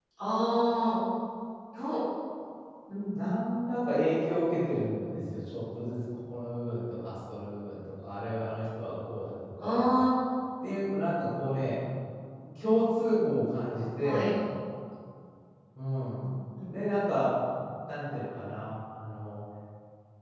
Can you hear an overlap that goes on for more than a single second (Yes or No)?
No